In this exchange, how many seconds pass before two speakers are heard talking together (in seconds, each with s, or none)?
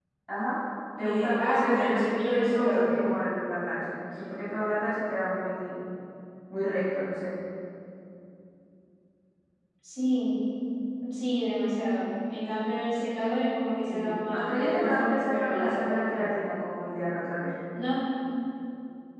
1.0 s